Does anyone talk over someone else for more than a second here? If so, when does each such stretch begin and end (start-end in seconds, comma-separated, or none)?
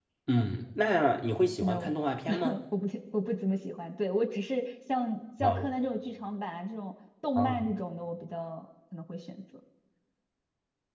none